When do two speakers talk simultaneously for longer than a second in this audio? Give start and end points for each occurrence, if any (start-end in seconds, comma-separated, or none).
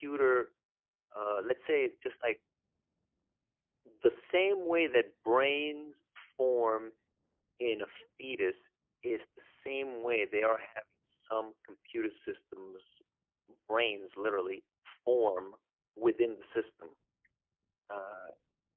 none